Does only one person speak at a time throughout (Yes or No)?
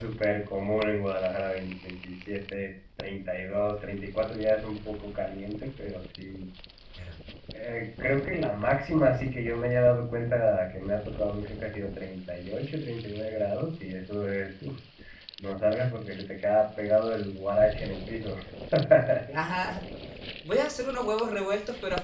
Yes